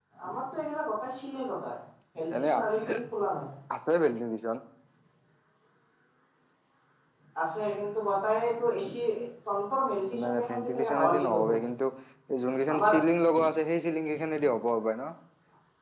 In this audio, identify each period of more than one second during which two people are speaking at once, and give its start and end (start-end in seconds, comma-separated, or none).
10.2-11.5